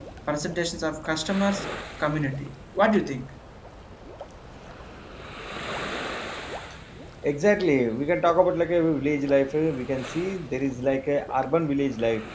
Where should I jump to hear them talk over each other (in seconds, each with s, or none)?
none